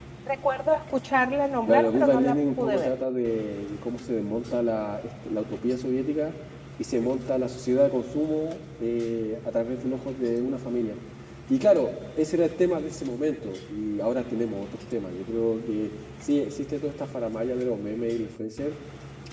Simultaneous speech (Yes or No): Yes